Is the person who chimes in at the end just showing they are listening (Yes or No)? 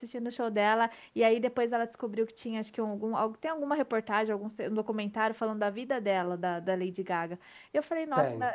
Yes